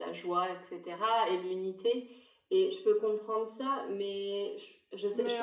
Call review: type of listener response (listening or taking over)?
taking over